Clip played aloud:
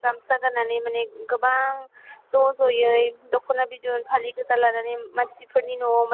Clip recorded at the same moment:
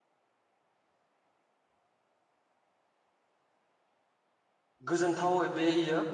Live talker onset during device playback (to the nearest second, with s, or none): 5 s